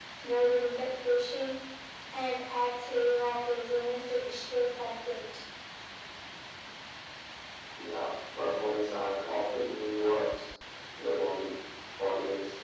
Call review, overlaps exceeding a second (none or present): none